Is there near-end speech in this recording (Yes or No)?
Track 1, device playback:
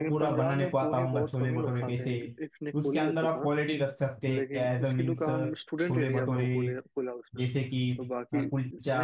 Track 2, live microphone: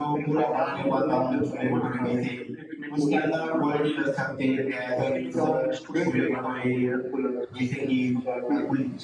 No